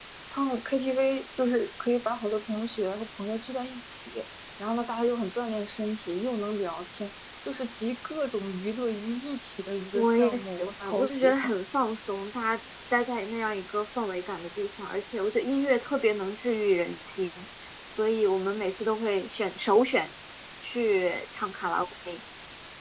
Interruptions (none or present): present